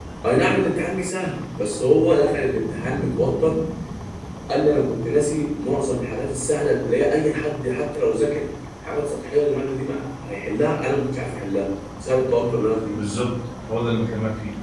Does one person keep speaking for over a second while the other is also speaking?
No

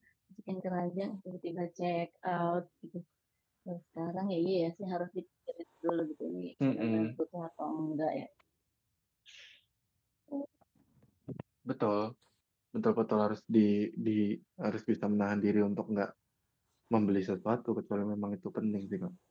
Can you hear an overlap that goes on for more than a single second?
No

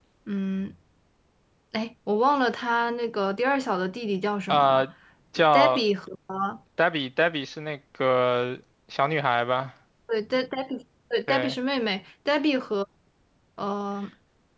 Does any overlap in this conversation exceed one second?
No

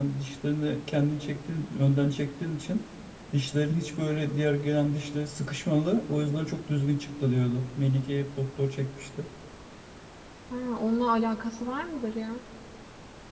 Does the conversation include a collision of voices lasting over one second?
No

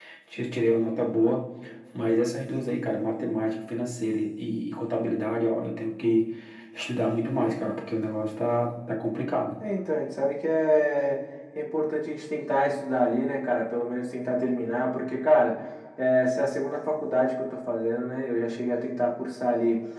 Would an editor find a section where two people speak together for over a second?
No

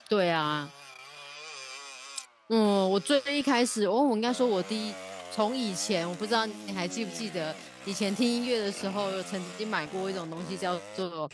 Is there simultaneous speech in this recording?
No

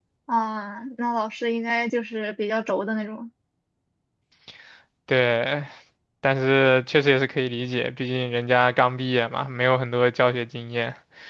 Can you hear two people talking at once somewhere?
No

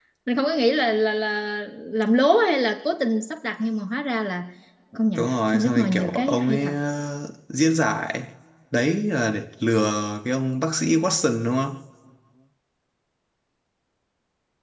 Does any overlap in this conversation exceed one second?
Yes, from 5.2 s

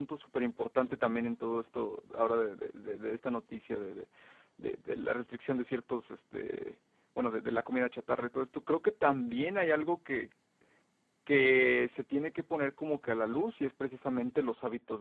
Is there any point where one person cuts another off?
No

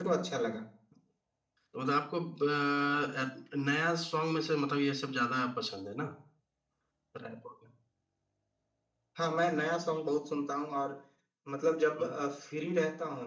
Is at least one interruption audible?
No

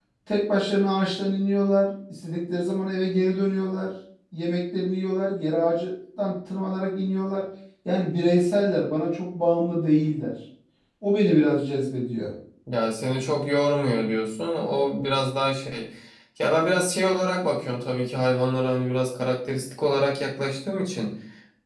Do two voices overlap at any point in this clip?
No

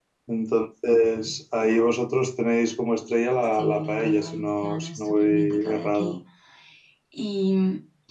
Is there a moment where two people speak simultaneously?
Yes, from 3.5 s

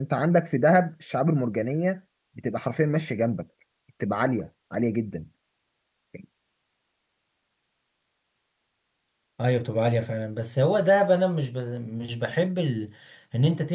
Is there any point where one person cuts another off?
No

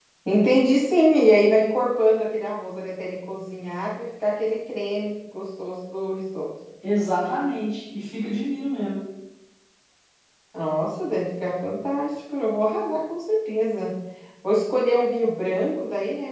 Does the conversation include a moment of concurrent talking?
No

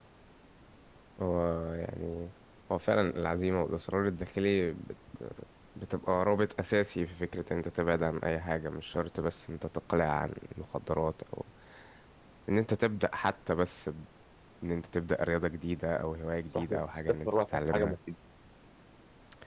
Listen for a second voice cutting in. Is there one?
Yes, from 16.5 s

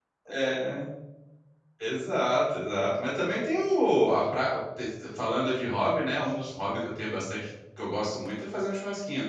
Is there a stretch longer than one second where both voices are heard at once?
No

